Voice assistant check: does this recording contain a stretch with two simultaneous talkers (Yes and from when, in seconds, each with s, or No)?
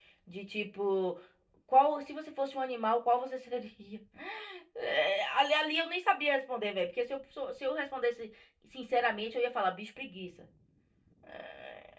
No